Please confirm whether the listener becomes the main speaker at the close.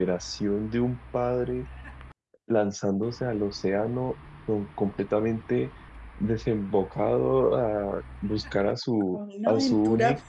Yes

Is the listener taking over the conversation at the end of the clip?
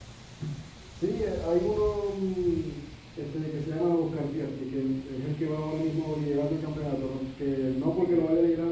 No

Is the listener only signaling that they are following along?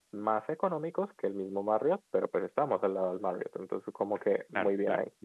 No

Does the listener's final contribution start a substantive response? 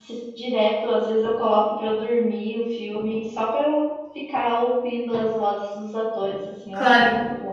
Yes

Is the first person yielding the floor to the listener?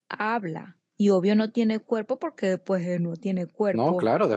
Yes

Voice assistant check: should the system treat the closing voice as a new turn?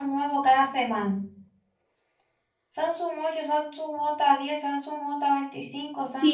Yes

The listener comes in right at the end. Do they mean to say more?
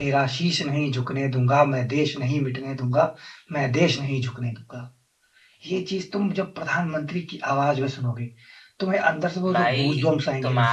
Yes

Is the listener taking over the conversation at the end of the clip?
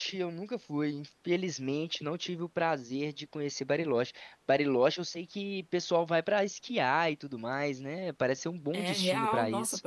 Yes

